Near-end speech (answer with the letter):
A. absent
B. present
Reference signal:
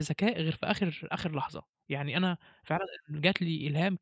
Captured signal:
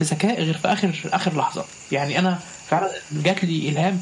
A